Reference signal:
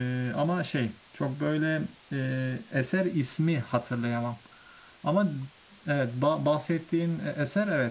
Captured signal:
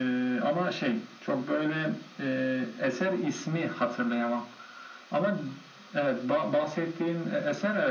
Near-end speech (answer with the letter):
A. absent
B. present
A